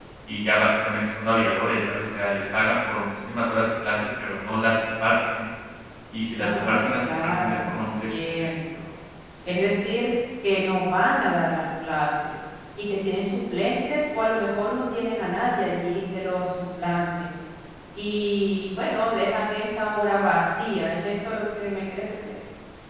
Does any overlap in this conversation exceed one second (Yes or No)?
Yes